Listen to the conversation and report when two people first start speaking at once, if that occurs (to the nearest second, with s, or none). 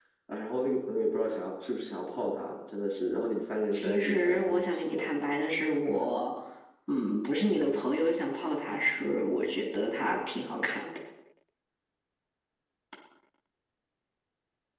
4 s